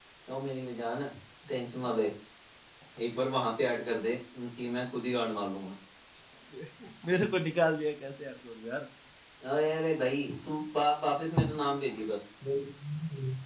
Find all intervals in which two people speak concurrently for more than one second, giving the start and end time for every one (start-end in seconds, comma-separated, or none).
none